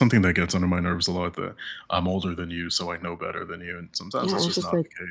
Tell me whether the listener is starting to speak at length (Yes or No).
Yes